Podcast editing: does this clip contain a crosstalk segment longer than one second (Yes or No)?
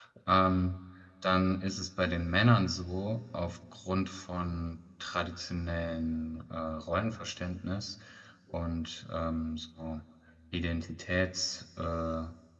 No